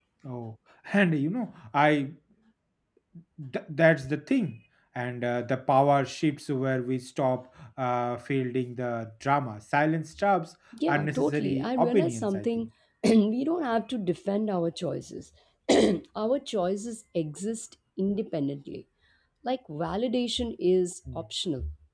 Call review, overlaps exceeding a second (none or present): present